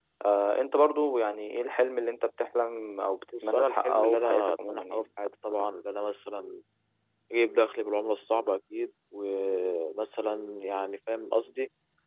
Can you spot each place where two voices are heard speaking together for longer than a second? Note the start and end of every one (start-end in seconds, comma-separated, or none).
3.4-5.0